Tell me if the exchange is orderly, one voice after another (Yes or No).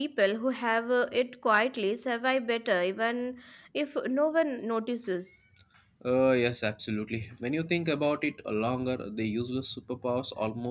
Yes